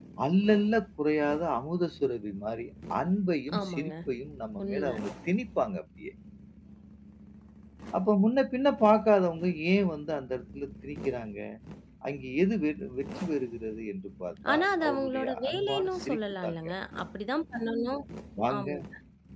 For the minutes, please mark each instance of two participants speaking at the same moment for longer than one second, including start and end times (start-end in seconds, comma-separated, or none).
14.5-16.6